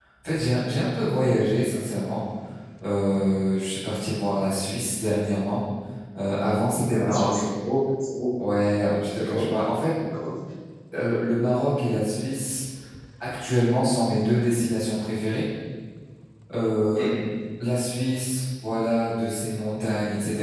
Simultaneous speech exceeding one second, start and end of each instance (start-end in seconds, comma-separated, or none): none